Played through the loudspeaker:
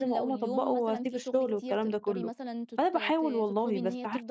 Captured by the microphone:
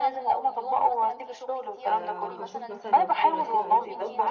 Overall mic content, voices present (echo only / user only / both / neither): both